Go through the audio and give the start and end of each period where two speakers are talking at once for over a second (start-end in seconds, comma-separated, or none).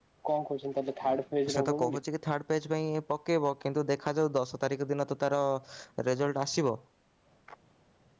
none